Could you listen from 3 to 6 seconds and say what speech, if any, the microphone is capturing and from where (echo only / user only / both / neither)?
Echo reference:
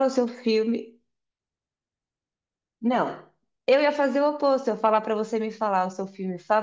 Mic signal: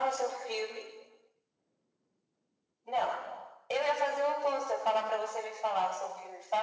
echo only